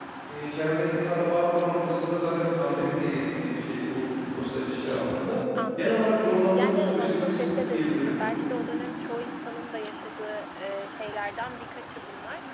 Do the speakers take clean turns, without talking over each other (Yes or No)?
No